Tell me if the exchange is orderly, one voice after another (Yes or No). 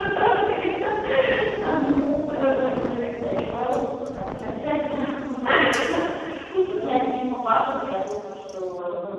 No